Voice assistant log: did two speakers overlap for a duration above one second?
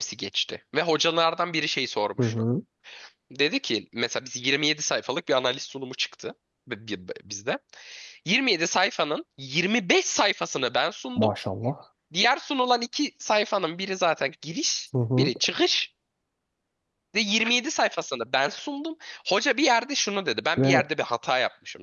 No

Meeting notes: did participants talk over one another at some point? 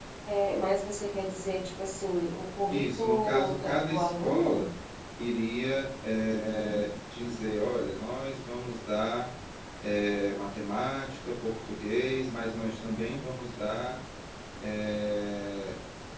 Yes, from 2.7 s

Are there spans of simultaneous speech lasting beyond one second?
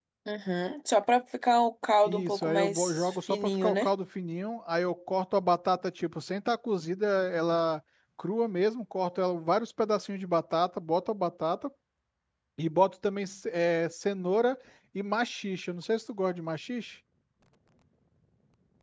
Yes, from 2.0 s

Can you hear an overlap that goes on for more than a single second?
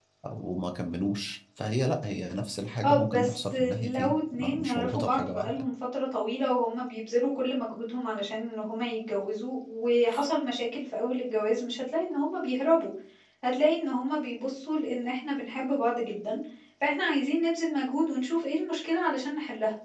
Yes, from 2.8 s

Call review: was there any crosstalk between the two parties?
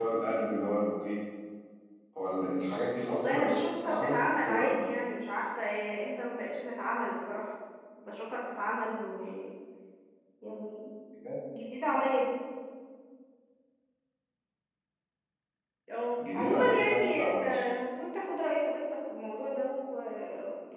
Yes, from 3.0 s

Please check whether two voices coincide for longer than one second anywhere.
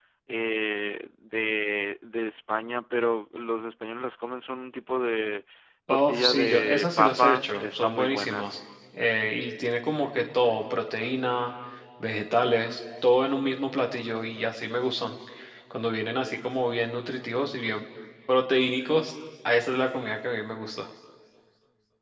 Yes, from 5.9 s

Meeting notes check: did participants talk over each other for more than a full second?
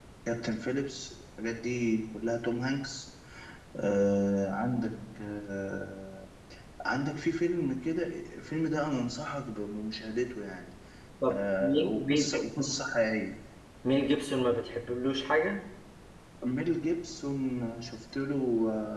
Yes, from 11.3 s

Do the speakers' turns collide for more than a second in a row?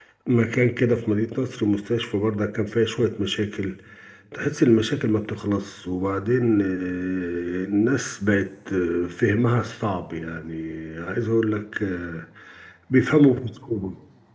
No

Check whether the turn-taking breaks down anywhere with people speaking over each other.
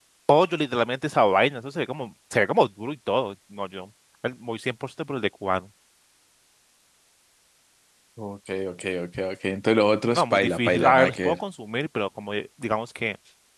Yes, from 10.1 s

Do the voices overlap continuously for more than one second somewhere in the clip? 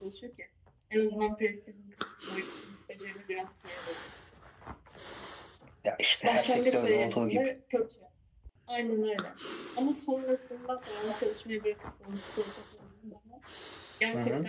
Yes, from 6.2 s

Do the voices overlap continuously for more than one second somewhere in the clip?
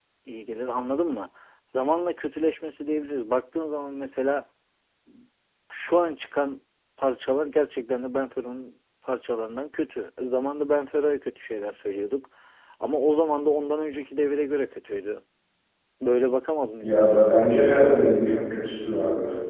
Yes, from 16.8 s

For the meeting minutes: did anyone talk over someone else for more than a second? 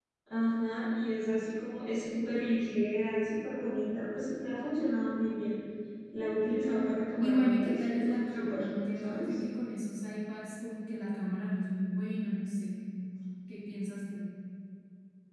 Yes, from 7.2 s

